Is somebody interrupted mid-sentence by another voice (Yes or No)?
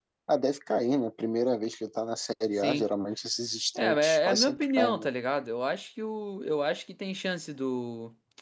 Yes